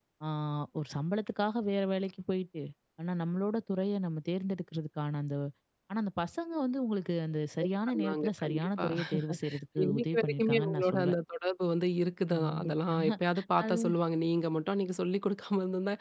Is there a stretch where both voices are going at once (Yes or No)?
Yes